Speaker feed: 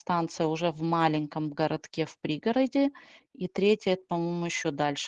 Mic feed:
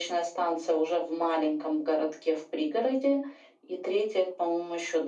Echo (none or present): present